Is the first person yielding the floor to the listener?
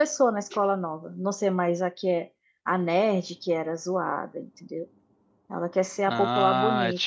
Yes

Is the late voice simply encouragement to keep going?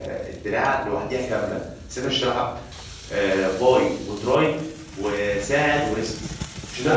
No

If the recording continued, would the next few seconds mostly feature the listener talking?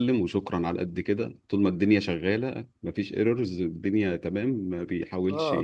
Yes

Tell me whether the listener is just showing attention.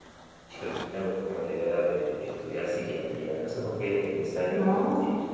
Yes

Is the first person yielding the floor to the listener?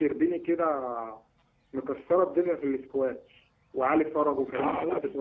Yes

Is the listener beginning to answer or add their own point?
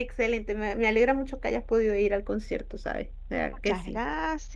Yes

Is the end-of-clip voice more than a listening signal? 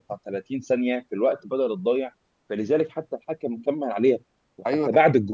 No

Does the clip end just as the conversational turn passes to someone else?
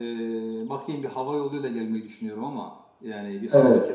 No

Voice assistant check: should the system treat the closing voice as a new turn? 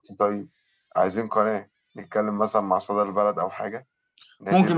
Yes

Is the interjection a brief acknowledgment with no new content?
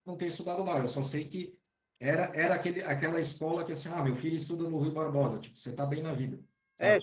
No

